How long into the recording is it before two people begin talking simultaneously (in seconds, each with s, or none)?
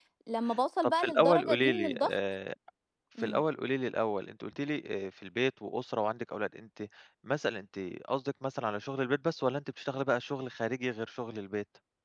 0.8 s